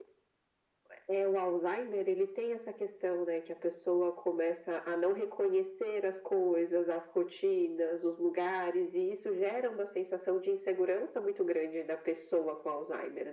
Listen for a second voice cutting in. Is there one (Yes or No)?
No